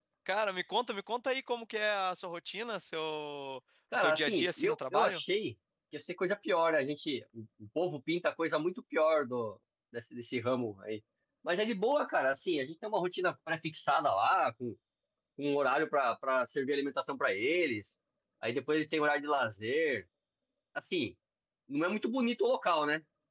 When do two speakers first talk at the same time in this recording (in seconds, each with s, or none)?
3.9 s